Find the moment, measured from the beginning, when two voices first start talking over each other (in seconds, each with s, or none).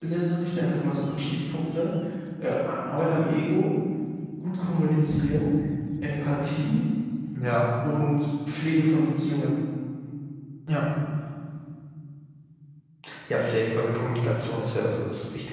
none